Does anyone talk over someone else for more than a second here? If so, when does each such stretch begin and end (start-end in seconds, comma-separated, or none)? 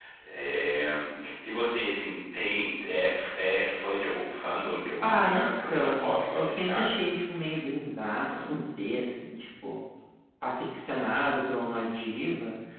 5.0-7.0